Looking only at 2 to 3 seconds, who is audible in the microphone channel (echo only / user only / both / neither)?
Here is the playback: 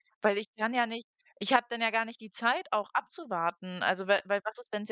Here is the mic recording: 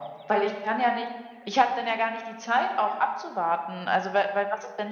echo only